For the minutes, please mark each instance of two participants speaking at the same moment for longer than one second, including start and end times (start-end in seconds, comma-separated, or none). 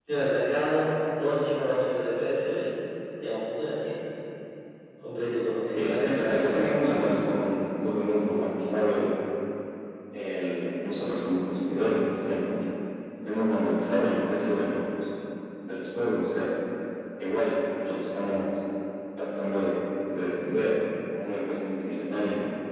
5.7-7.0